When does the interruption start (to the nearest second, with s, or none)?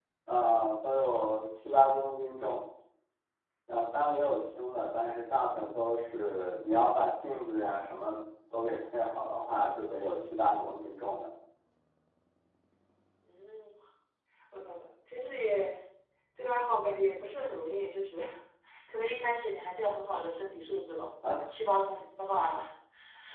none